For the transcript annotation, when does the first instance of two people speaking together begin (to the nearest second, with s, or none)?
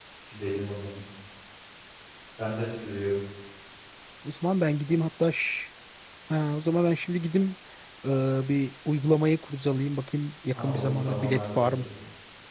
11 s